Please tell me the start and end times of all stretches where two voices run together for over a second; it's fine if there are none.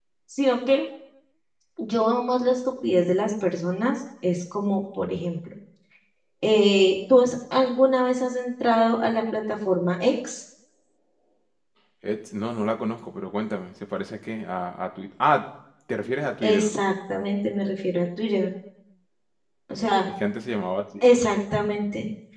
none

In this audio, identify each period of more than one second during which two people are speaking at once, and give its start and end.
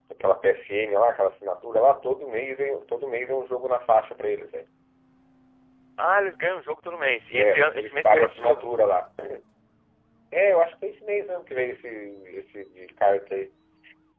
7.3-8.6

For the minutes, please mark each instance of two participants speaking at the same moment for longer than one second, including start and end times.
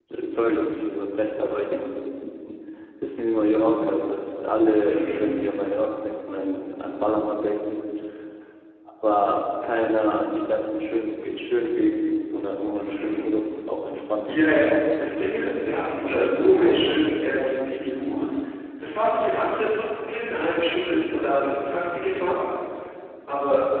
14.3-16.9

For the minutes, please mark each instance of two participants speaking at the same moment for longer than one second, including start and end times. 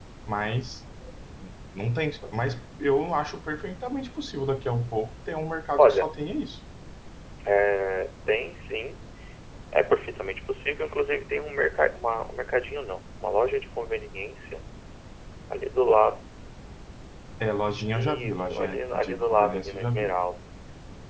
18.0-20.1

